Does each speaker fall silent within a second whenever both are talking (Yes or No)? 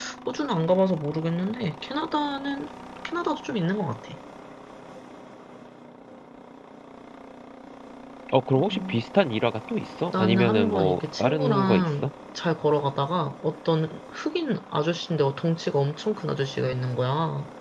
No